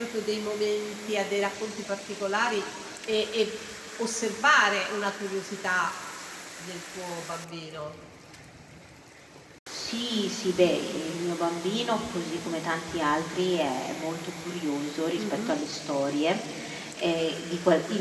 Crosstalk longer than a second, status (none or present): none